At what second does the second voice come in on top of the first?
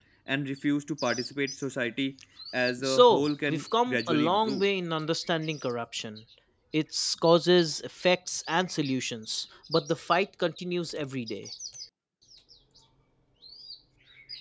2.8 s

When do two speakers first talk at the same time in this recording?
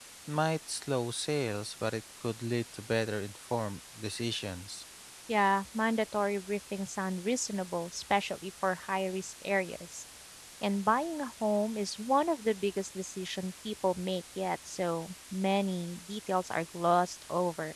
none

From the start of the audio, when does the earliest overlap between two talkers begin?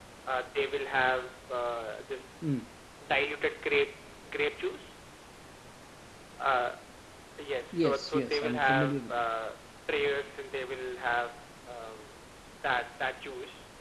7.7 s

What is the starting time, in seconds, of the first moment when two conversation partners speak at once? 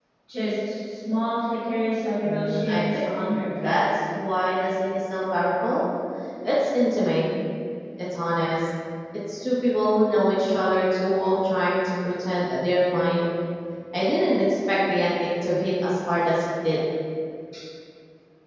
2.2 s

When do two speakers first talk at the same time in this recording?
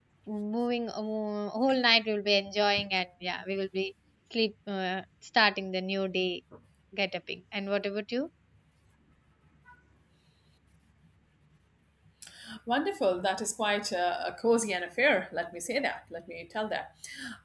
none

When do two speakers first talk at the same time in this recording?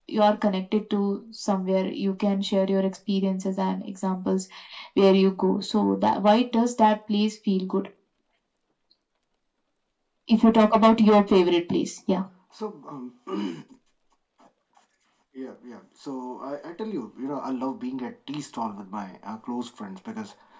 none

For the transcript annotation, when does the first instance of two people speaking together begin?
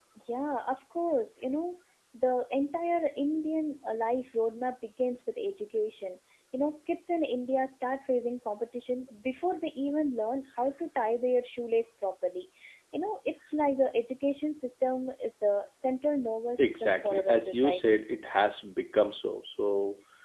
16.6 s

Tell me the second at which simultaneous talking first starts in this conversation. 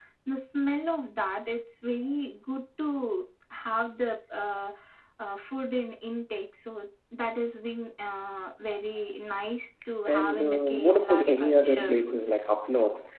10.0 s

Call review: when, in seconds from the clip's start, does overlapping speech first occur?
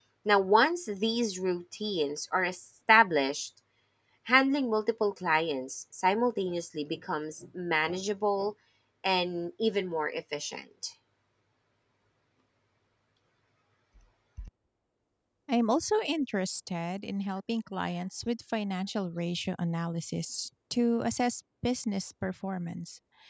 none

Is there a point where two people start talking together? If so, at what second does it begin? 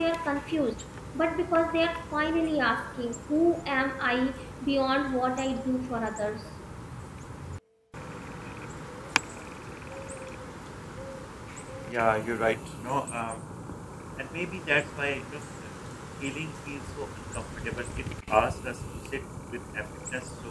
none

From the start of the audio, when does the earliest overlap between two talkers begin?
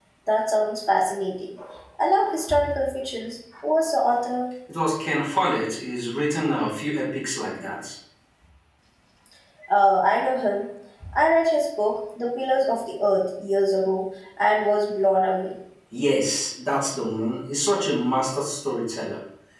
none

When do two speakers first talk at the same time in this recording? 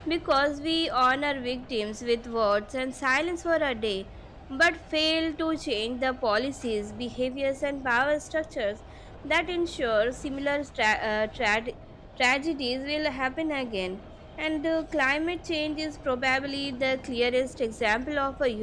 none

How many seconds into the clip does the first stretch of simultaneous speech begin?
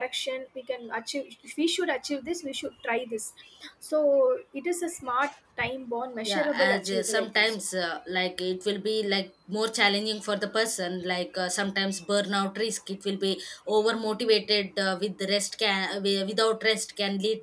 6.2 s

